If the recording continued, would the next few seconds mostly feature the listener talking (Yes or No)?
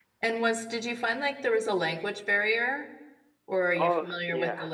Yes